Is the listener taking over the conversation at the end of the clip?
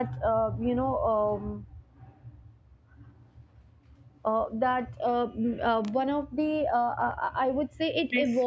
No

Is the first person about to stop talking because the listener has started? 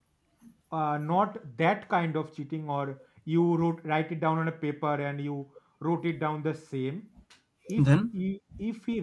No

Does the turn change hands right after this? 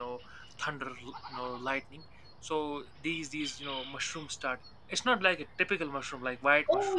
Yes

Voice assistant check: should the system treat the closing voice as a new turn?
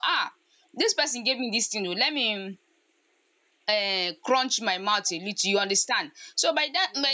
No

